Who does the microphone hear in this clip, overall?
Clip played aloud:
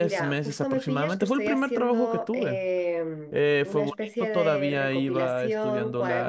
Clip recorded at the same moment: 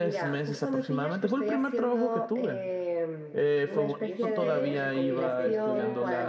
both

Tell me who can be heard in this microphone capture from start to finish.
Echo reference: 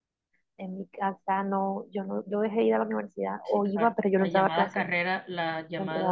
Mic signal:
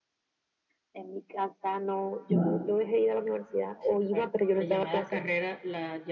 both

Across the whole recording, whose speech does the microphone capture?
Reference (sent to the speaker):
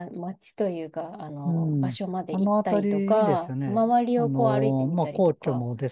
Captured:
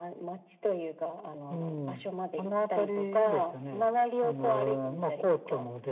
echo only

